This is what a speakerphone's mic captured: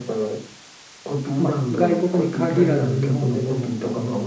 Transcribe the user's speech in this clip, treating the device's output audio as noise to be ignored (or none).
う、まあ、外国に限らず日本ででもこ